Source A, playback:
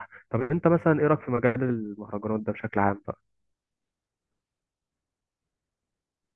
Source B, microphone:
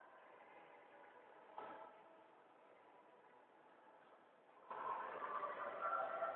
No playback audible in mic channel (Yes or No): Yes